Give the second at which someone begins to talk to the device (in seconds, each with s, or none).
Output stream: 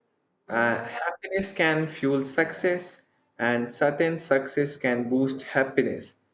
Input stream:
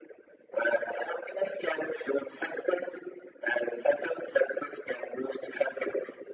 none